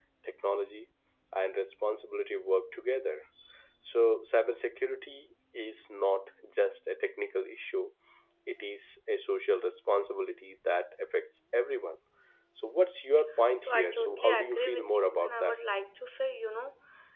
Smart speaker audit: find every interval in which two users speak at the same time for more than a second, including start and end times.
13.6-15.6

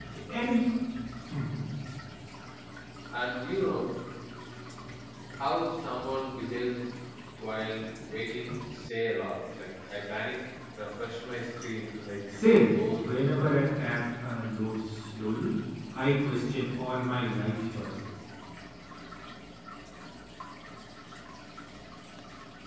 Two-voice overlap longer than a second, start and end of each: 12.3-13.6

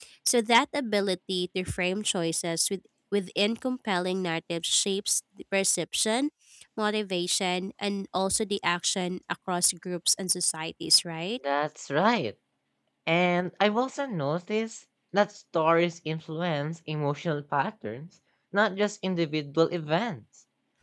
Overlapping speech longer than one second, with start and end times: none

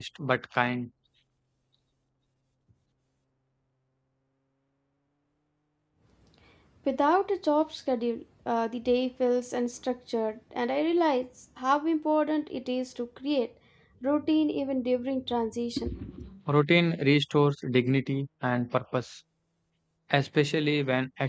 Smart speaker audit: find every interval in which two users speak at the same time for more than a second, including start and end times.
none

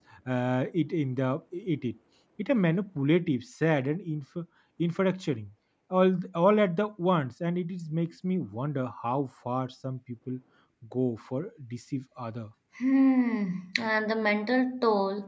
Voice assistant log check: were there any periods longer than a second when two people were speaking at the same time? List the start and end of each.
none

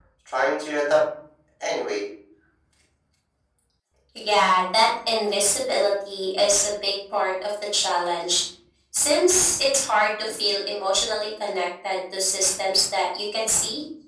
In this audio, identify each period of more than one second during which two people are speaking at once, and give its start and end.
none

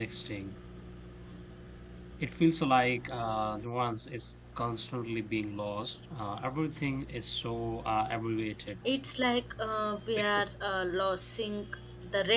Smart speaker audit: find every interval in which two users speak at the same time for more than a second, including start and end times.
none

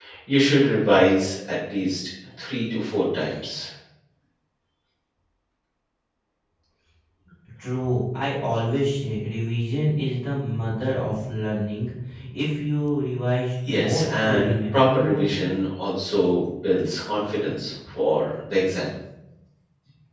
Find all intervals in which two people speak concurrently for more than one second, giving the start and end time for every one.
13.7-15.2

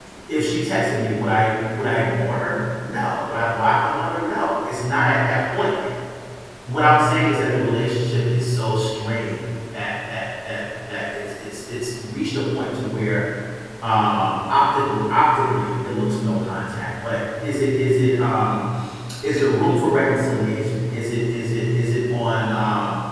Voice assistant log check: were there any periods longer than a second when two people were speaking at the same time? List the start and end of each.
none

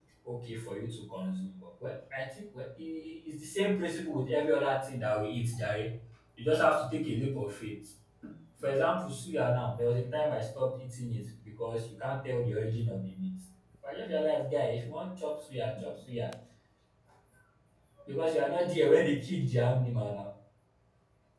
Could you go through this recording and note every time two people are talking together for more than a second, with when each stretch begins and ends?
none

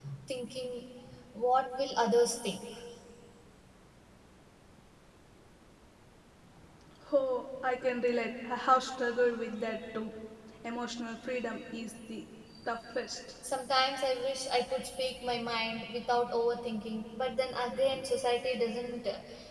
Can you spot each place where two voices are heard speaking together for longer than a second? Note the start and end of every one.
none

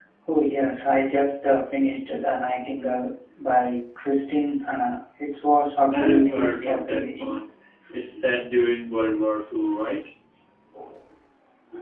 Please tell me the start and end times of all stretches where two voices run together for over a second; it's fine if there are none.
5.9-7.4

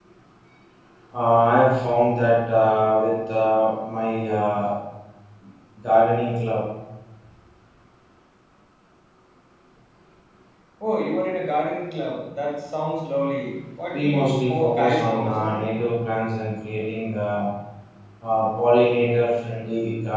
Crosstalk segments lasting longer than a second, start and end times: 13.9-15.6

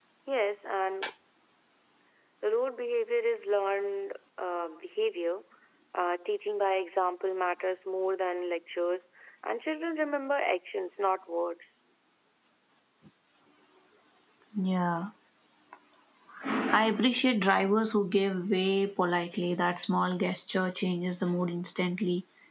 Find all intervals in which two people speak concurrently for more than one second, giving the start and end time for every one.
none

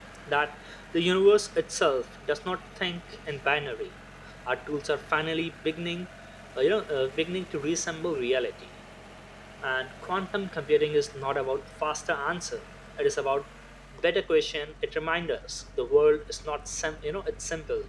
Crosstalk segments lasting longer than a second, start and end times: none

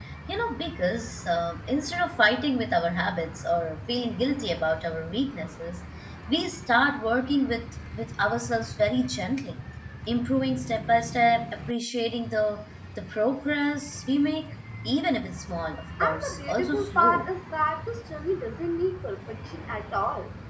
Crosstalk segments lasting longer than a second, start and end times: 16.0-17.3

